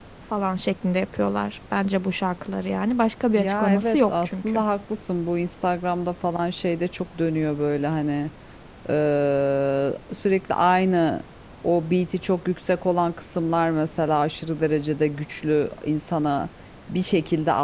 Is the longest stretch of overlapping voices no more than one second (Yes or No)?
No